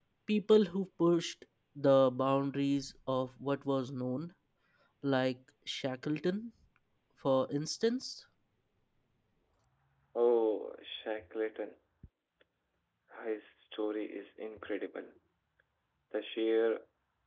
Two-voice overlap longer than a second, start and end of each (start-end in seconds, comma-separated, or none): none